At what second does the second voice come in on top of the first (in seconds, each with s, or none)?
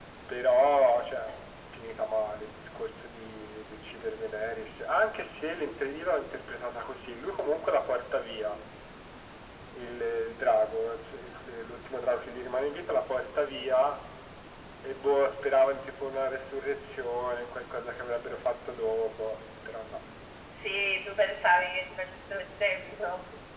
none